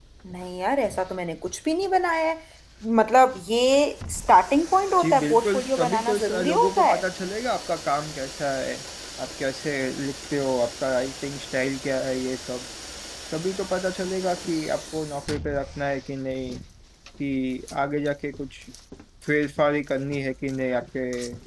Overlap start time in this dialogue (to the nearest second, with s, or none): 5 s